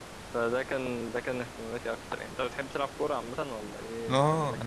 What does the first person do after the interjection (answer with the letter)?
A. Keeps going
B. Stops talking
B